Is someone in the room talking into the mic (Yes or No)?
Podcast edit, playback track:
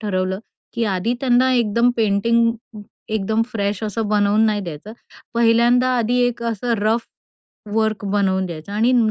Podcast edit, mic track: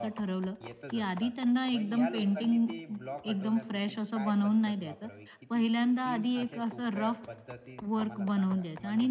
Yes